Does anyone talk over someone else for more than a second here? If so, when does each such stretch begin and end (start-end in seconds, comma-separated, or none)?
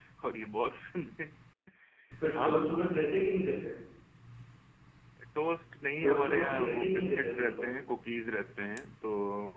6.0-7.7